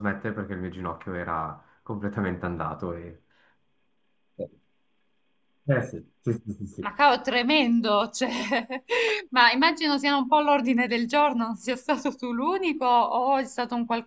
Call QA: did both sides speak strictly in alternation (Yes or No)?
Yes